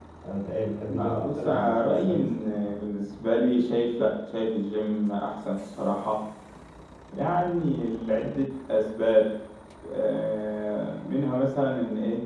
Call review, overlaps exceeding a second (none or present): present